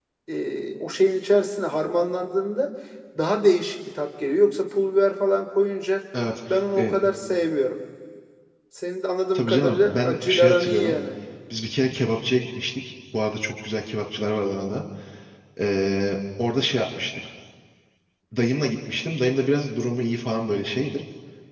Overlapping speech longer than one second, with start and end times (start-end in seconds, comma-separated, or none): 9.3-11.0